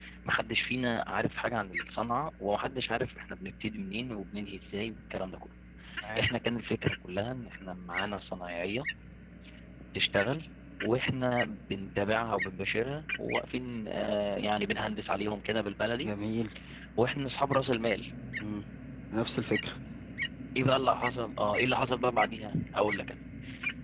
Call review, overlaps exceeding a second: none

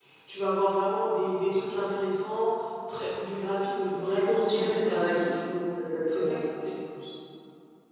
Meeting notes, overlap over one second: present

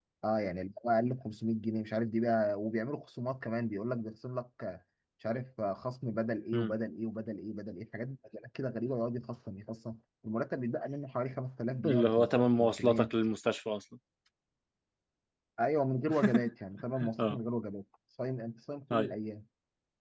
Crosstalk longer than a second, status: present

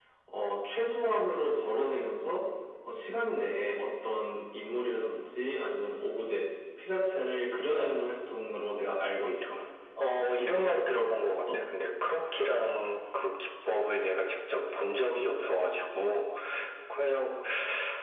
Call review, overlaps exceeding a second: present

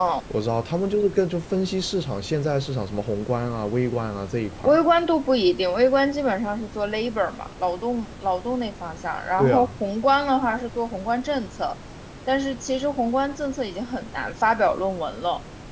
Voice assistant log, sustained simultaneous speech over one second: none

